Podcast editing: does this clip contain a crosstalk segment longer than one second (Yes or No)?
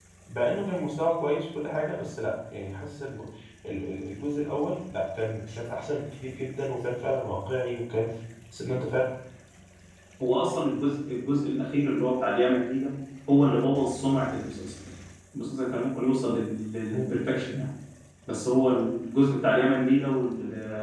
No